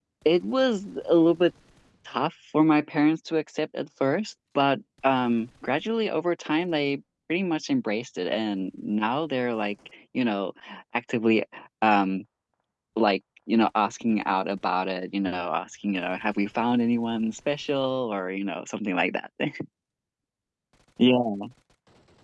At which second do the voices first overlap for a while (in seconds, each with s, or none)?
none